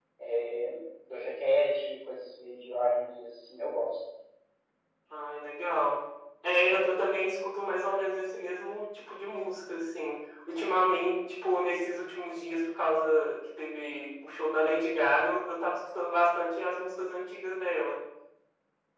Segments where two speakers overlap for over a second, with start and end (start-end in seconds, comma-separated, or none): none